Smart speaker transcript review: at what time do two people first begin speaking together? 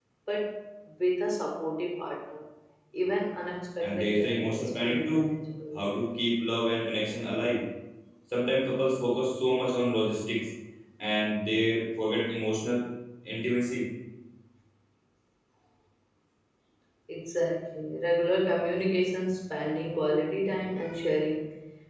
4 s

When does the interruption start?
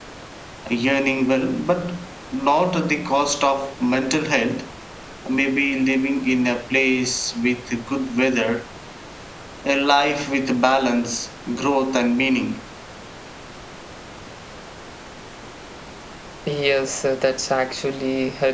none

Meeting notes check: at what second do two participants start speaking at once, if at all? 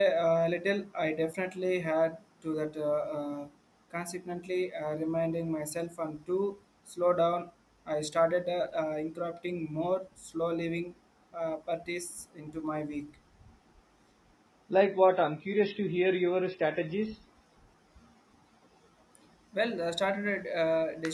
none

